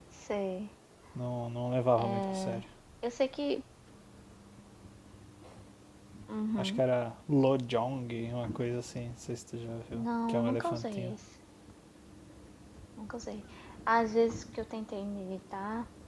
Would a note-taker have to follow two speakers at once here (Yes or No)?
Yes